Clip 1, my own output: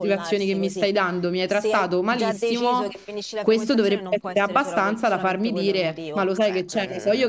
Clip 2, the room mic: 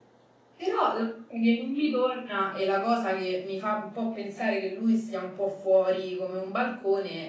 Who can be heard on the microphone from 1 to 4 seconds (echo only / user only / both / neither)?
user only